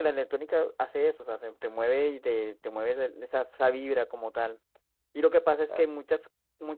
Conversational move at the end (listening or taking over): listening